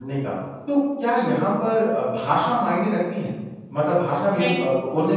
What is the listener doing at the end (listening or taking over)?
listening